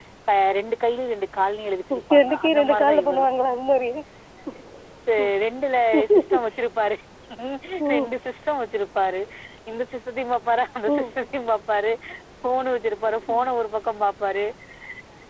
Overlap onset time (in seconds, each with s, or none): 1.9 s